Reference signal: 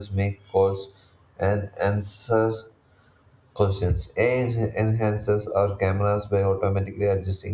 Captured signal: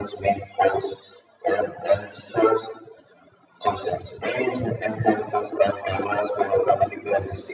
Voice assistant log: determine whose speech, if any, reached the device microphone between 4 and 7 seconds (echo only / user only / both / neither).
echo only